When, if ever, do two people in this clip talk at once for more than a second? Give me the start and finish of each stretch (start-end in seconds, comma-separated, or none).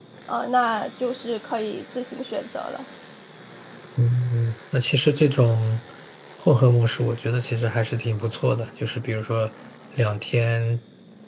none